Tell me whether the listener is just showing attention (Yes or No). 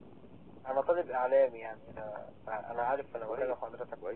No